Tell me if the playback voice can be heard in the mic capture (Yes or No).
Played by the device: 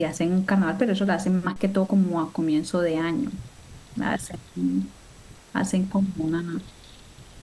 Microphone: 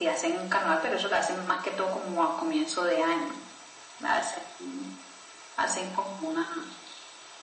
Yes